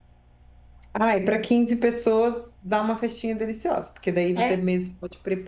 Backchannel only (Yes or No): Yes